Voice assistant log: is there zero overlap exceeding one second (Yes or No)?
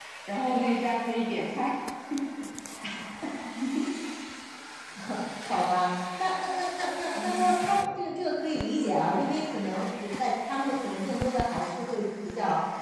Yes